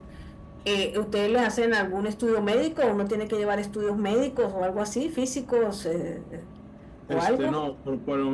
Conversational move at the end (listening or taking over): taking over